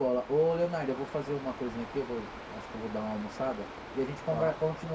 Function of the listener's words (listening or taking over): listening